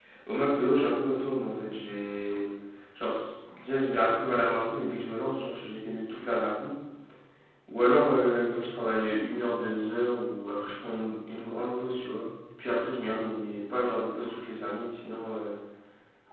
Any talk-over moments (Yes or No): No